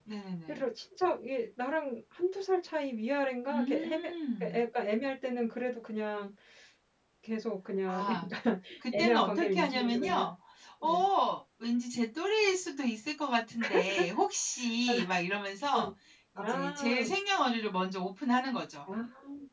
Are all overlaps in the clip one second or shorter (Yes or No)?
No